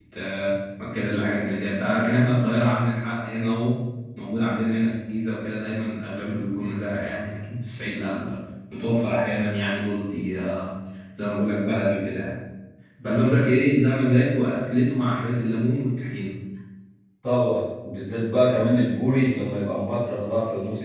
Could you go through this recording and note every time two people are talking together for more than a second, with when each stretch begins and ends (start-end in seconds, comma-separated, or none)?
none